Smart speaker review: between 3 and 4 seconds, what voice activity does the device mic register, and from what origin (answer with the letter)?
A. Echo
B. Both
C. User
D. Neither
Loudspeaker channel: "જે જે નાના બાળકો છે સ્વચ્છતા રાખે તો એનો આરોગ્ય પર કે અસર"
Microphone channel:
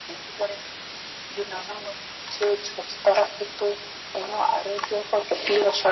A